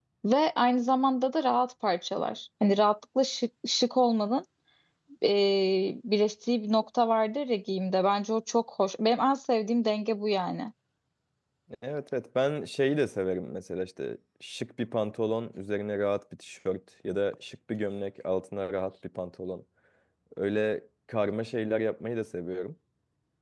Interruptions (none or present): none